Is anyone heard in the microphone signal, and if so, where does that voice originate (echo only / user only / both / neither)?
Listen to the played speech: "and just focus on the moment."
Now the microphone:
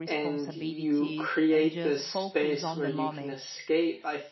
both